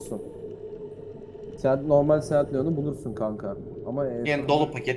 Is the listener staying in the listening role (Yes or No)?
No